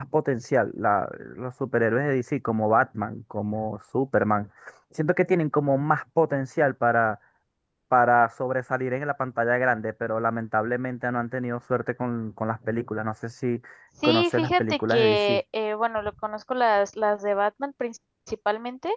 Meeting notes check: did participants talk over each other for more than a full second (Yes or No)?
Yes